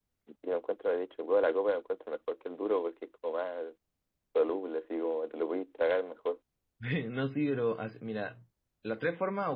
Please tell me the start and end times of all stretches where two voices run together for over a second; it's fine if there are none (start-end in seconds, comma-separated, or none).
none